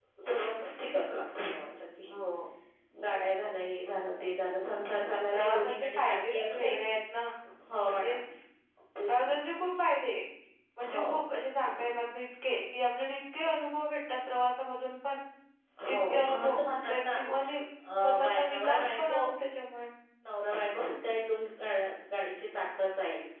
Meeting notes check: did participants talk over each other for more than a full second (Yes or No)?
Yes